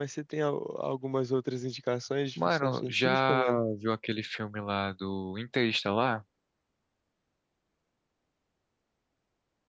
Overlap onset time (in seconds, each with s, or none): 2.4 s